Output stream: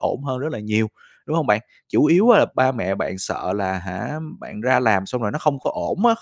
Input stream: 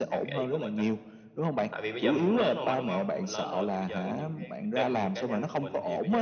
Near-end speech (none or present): present